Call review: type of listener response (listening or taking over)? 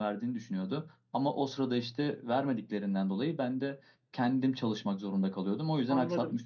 taking over